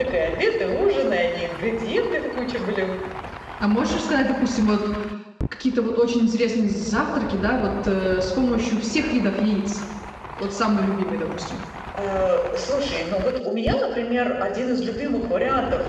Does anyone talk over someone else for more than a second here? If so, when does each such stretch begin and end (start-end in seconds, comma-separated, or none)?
none